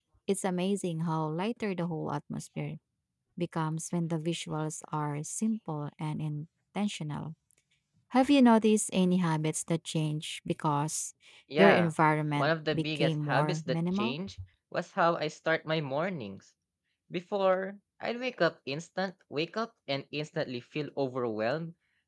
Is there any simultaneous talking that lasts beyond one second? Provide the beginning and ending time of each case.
12.4-14.2

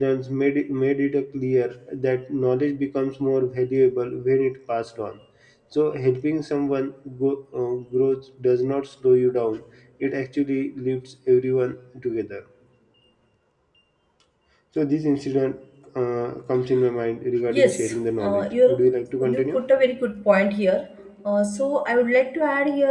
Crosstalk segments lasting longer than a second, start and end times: 17.5-18.8

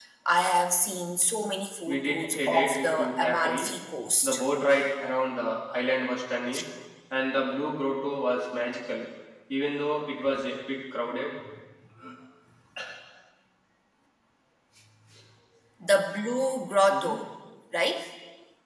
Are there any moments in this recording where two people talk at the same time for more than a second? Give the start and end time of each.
1.9-3.7

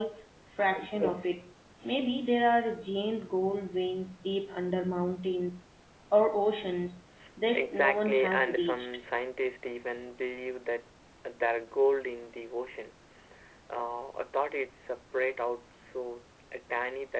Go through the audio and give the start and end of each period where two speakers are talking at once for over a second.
7.5-8.9

